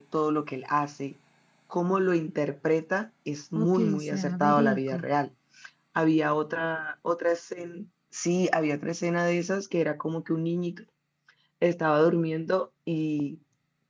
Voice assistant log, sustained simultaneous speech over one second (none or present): present